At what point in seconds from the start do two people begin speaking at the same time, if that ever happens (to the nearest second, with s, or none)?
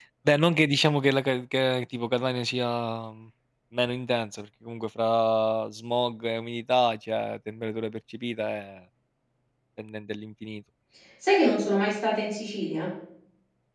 none